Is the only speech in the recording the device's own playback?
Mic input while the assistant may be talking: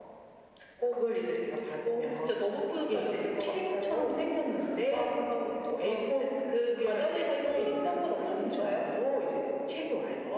Yes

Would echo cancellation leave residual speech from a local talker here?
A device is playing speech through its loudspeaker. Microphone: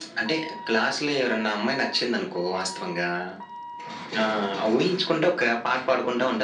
No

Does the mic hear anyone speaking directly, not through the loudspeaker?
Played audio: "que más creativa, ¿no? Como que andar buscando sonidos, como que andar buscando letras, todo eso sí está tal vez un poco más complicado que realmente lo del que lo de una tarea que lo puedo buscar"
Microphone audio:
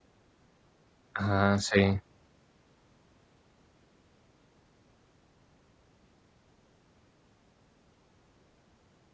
Yes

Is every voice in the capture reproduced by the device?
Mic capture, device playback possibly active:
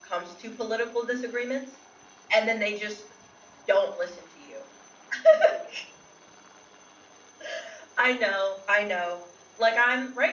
No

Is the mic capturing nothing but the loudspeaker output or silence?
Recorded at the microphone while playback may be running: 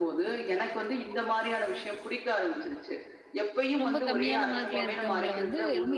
No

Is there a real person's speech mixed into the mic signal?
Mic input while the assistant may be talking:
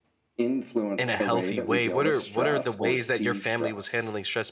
Yes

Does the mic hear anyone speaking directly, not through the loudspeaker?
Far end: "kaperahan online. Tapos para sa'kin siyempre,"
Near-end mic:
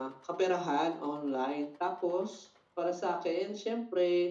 No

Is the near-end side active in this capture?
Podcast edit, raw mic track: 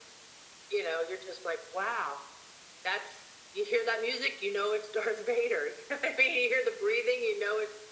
No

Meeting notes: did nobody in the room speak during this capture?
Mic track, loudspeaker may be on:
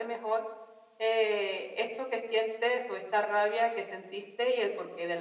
Yes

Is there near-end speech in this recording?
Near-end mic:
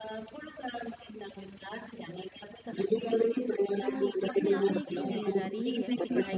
Yes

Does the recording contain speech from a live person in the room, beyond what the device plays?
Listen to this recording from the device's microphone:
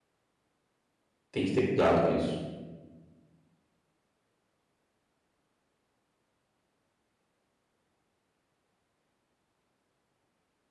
Yes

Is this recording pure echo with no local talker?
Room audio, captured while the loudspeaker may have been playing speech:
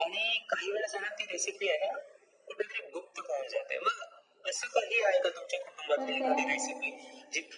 No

